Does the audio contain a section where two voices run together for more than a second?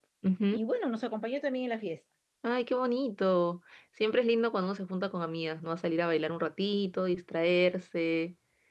No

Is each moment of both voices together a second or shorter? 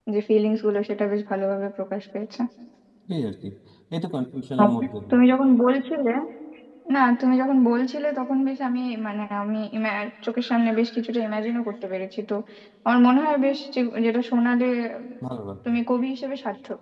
Yes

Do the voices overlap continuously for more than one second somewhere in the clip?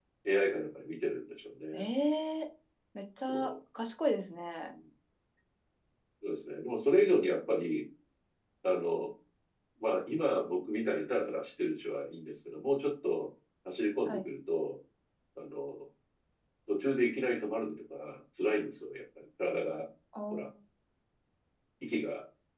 No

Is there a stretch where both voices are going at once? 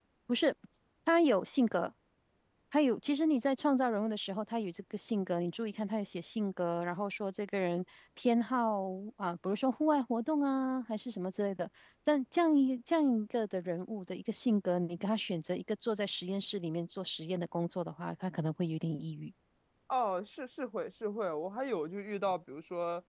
No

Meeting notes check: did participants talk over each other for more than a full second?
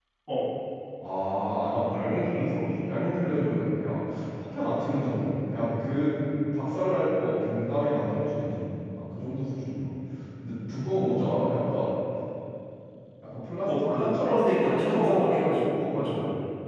Yes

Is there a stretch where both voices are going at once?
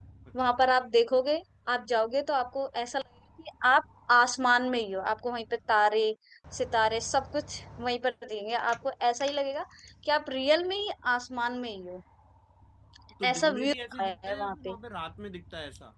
Yes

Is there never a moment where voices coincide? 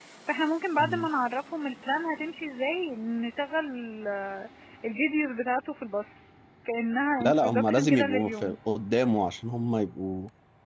No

